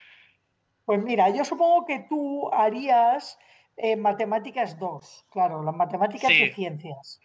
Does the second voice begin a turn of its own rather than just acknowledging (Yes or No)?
No